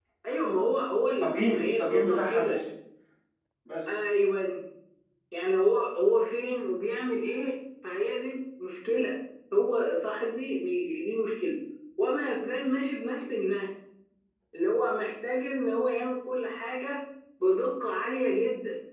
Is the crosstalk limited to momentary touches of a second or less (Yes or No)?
No